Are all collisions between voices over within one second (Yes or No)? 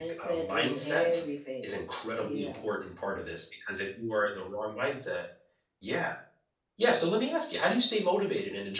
No